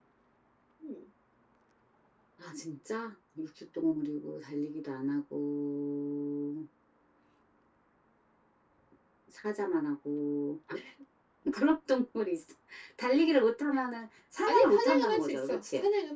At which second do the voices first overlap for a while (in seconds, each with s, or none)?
14.4 s